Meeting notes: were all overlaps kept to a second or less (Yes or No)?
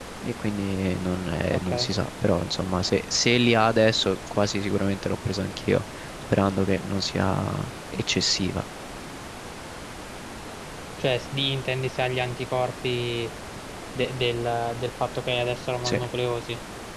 Yes